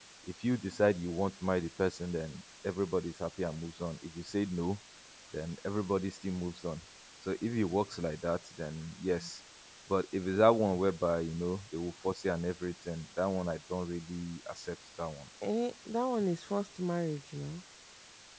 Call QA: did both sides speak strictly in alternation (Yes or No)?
Yes